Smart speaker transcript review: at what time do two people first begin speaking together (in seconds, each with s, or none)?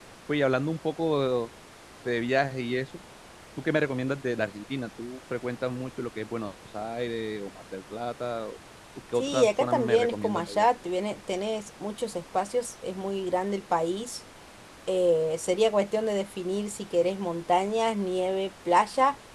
9.2 s